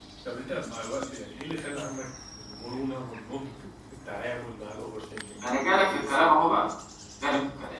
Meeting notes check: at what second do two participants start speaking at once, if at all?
5 s

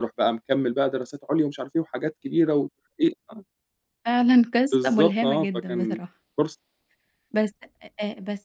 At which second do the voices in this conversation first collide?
5 s

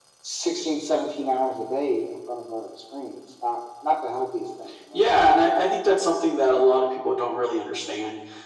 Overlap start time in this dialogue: none

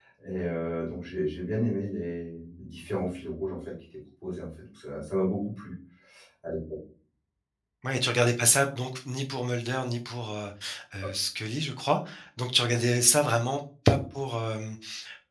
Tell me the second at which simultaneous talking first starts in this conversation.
none

